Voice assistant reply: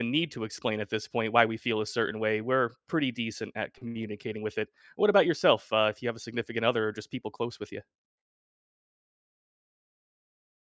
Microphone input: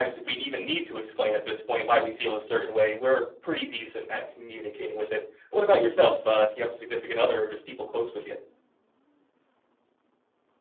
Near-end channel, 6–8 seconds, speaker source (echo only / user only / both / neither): echo only